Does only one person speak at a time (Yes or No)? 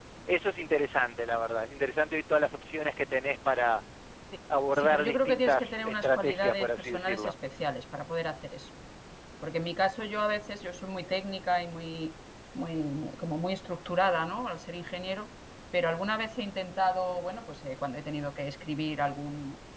No